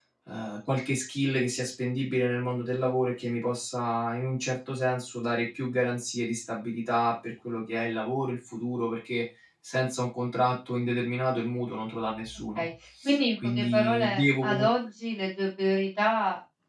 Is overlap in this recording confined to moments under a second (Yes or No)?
No